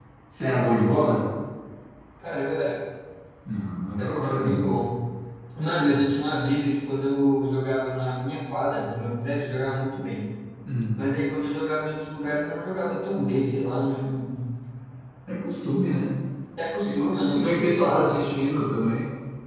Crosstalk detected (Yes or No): Yes